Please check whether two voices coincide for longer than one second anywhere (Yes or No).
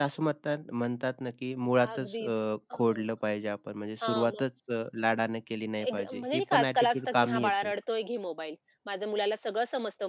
Yes